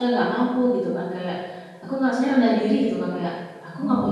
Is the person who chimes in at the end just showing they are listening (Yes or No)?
Yes